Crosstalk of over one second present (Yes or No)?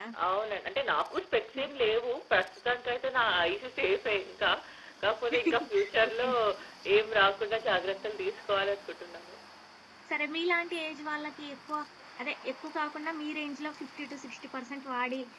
No